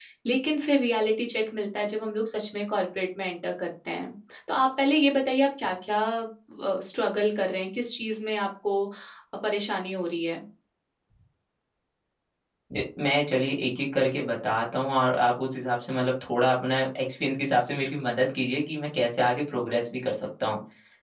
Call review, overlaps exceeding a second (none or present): none